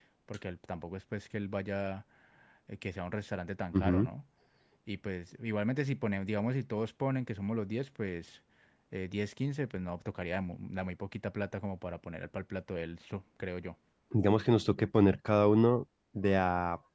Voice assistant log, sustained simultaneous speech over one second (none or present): none